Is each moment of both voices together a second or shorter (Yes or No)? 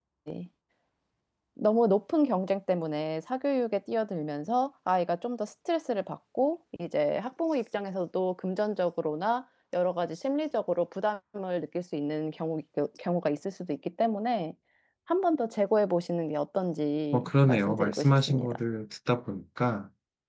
No